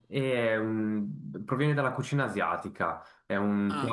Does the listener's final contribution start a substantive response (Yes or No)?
No